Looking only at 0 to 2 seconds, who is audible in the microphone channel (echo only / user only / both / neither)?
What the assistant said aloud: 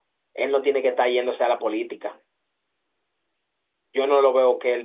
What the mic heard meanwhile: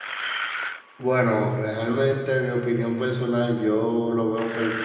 user only